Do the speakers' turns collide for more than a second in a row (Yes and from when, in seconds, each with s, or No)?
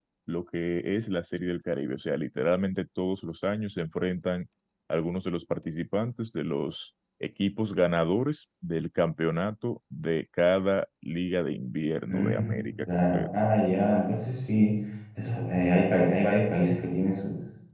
Yes, from 12.1 s